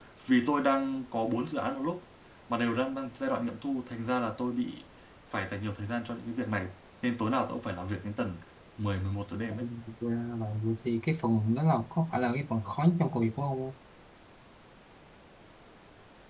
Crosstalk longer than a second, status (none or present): none